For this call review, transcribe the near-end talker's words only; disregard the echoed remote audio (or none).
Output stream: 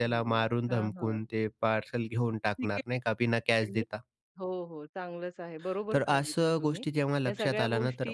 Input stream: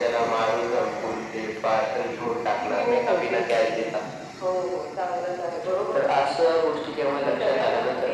हो, हो. ते सांगतात.